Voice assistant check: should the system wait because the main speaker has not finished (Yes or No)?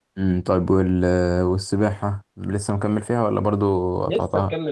No